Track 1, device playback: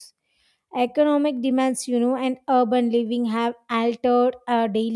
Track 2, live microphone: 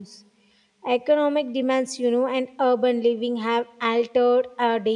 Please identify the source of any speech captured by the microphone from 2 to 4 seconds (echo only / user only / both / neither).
echo only